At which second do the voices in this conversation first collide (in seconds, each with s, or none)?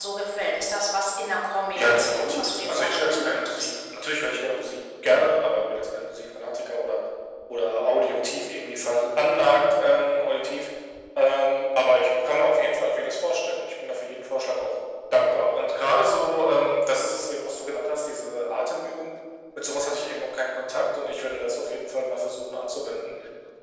1.8 s